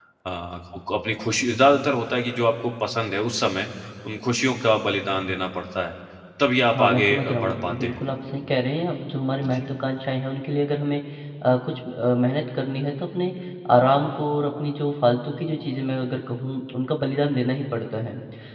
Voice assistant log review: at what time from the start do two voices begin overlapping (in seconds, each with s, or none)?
6.6 s